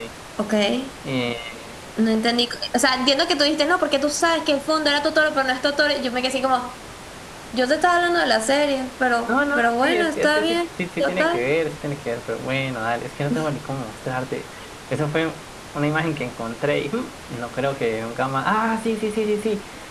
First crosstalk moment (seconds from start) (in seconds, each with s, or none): 9.3 s